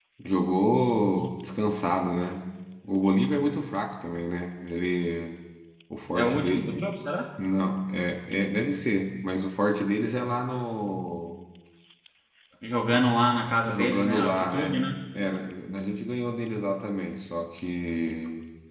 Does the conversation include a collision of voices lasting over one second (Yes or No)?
Yes